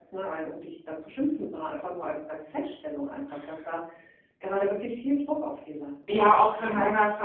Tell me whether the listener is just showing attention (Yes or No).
No